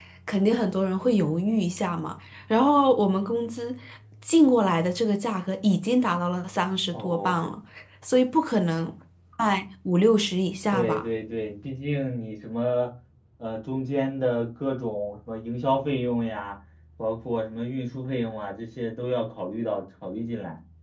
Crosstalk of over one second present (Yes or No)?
No